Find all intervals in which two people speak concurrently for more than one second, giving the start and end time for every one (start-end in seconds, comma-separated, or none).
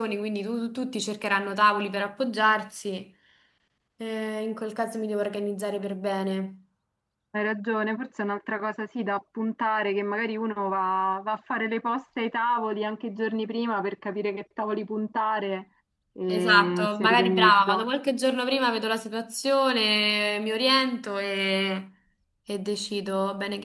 16.3-17.9